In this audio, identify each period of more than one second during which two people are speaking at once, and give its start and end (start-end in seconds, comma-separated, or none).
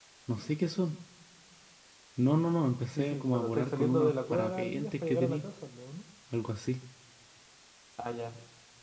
2.9-5.4